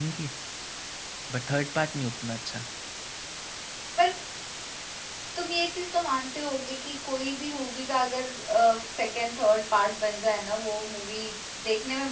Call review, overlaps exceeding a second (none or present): none